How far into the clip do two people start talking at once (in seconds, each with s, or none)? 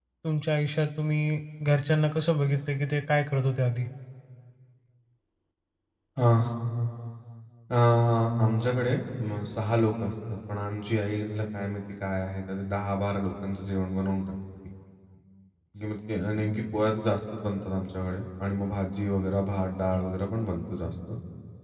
none